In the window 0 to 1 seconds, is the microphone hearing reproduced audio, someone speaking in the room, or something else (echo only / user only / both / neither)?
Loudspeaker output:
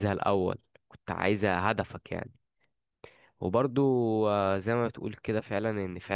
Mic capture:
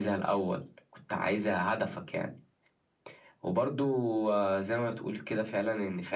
echo only